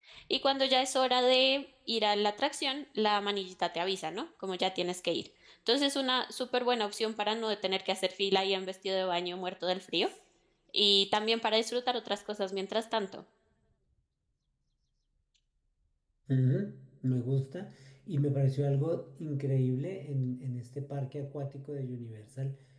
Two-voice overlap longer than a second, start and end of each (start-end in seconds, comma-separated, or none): none